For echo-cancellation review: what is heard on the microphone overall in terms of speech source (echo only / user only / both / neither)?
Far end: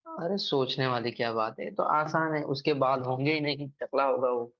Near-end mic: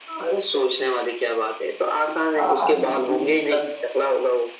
both